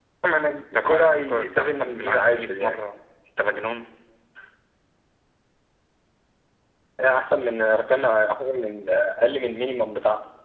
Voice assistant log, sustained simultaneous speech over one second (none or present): present